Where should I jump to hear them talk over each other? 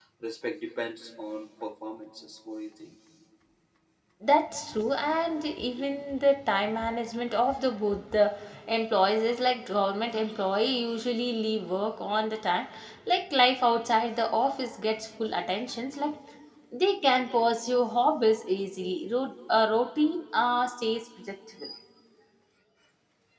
none

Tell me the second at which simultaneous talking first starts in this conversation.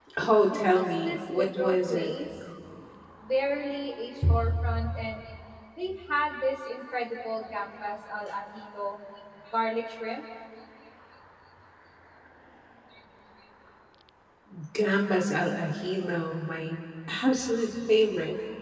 1 s

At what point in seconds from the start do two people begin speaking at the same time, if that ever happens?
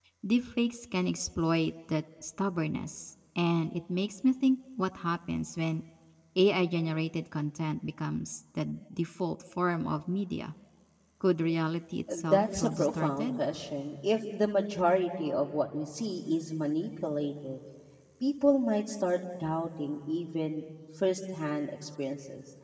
12 s

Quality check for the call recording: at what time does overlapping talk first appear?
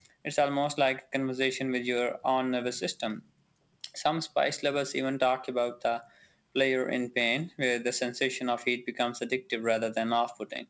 none

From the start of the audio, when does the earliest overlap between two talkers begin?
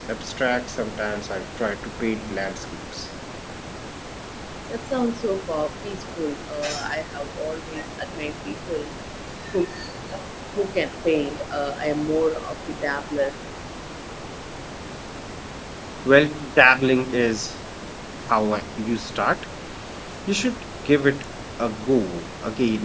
none

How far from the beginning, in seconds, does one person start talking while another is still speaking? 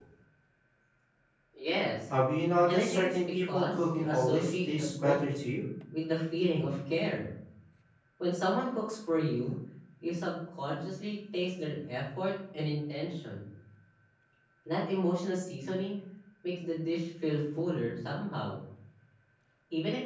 3 s

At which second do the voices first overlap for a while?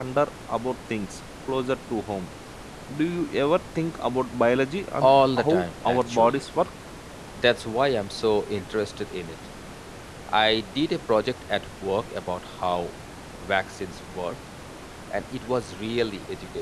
5 s

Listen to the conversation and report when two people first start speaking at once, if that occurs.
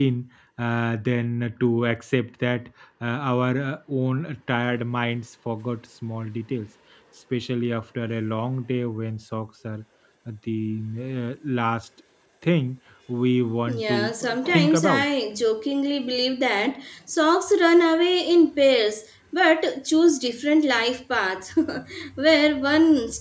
14 s

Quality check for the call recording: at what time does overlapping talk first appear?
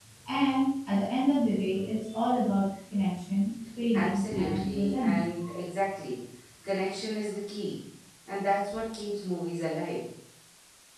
4 s

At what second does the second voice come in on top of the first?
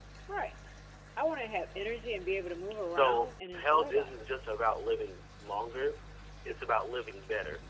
3 s

